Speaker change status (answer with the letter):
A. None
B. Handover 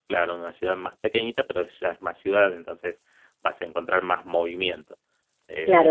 B